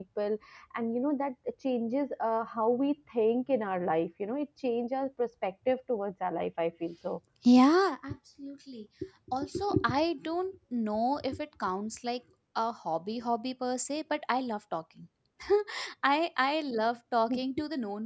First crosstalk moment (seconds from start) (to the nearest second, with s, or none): none